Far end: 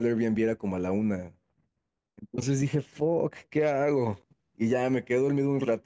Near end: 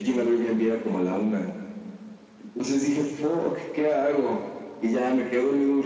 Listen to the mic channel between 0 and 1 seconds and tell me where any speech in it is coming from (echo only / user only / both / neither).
echo only